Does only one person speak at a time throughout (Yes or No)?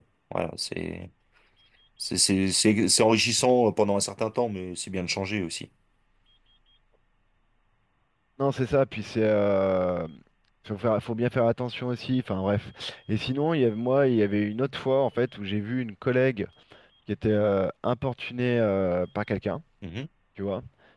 Yes